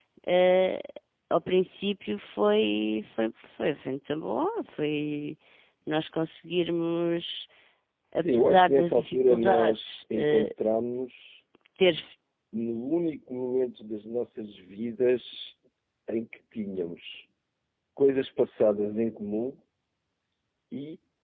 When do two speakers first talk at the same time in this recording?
8.2 s

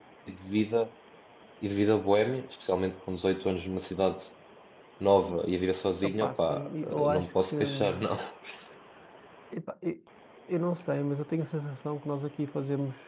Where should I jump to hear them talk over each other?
6.0 s

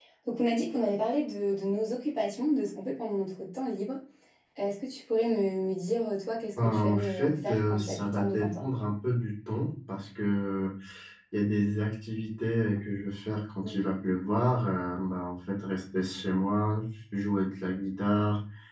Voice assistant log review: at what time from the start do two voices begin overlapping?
6.6 s

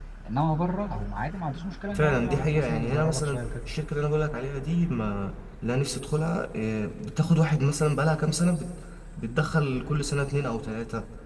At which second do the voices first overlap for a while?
1.9 s

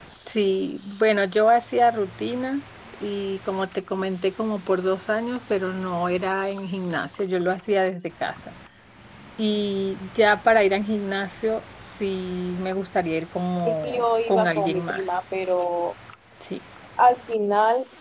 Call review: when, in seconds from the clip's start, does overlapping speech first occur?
13.6 s

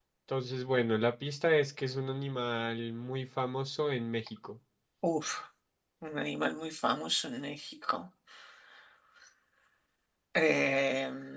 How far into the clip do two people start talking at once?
none

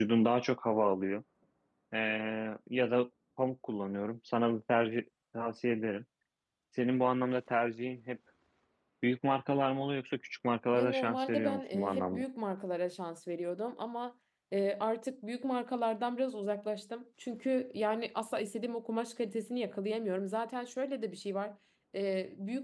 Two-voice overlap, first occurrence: 10.7 s

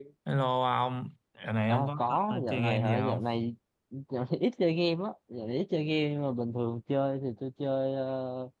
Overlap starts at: 1.7 s

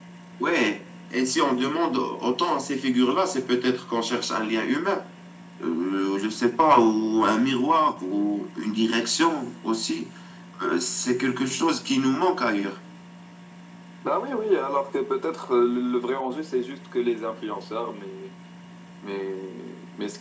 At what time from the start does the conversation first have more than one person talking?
none

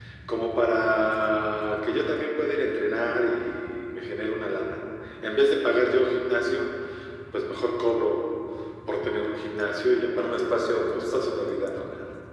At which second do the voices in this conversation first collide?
10.2 s

